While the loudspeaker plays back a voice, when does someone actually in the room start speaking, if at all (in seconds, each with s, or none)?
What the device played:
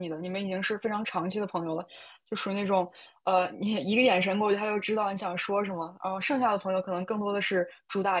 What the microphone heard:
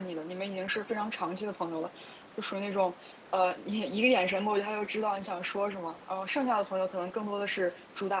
none